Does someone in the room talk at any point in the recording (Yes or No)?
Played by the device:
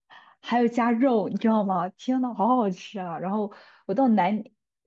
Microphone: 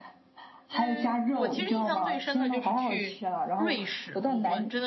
Yes